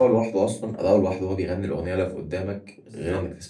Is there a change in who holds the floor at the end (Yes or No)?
Yes